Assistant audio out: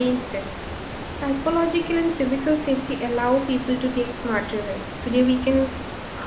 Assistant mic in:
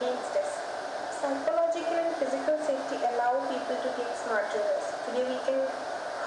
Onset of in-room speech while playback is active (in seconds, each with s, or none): none